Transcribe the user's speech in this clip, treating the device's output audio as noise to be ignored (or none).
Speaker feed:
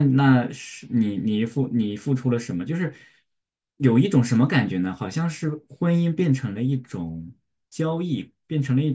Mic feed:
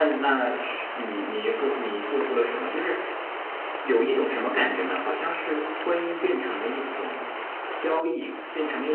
none